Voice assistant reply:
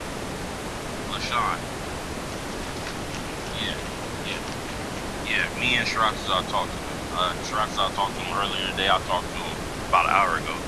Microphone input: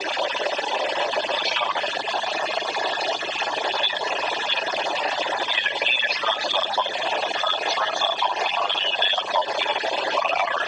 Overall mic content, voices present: echo only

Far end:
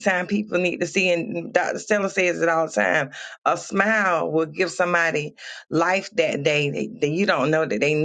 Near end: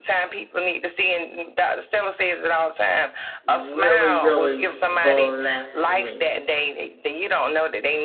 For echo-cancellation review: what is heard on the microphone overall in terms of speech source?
both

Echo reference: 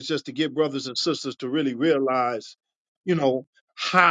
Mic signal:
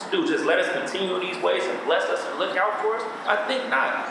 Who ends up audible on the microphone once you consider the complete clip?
user only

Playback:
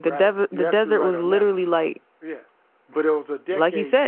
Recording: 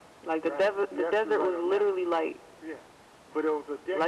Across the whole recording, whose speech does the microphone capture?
echo only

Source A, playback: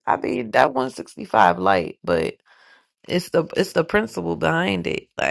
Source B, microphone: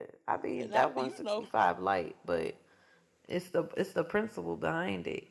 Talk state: both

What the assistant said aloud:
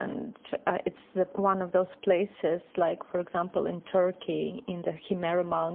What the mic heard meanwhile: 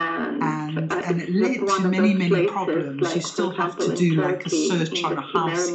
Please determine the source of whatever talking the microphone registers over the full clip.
both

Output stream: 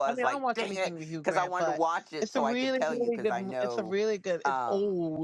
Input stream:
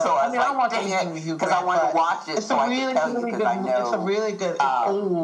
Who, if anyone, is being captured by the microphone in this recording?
echo only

